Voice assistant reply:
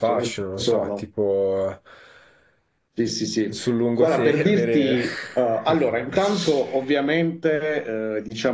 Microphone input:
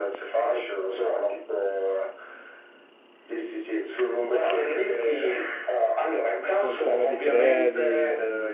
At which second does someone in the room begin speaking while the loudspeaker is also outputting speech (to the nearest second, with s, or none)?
7 s